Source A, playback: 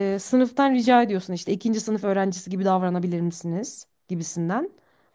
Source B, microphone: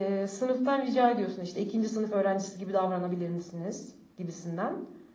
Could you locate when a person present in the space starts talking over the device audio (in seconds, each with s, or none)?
none